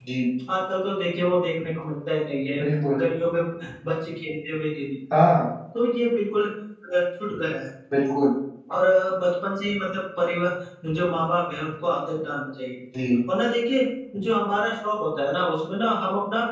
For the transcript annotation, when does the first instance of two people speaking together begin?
none

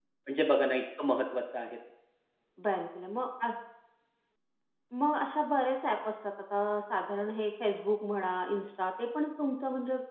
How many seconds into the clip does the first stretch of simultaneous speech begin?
none

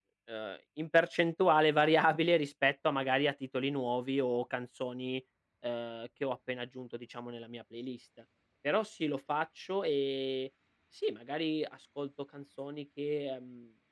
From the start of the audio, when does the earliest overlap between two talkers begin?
none

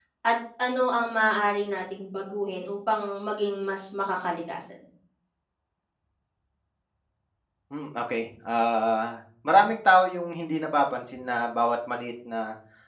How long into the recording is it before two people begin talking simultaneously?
none

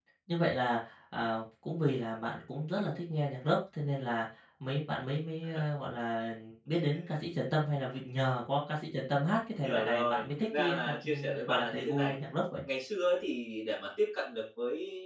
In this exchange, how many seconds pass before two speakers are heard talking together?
9.6 s

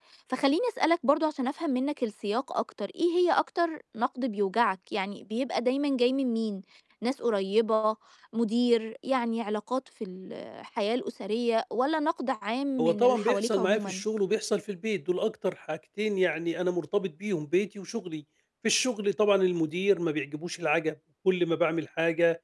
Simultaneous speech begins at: 12.8 s

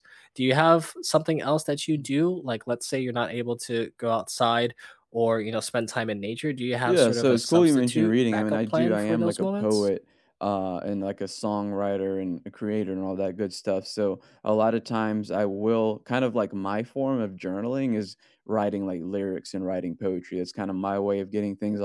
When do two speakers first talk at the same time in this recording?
6.8 s

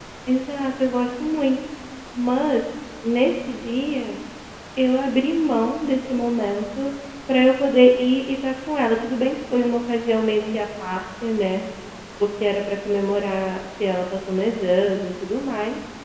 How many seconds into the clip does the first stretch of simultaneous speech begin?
none

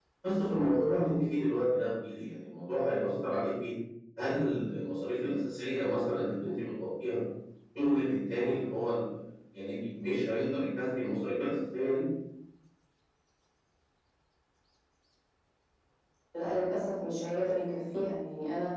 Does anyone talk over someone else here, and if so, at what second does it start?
none

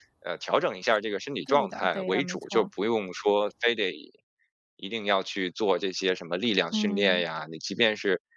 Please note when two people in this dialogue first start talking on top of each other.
1.5 s

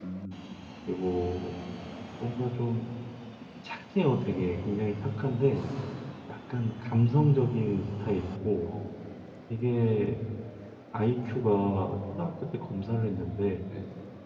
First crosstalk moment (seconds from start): none

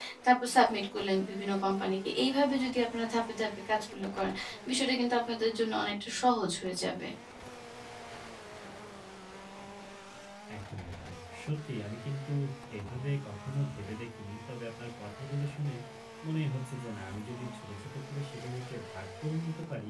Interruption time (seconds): none

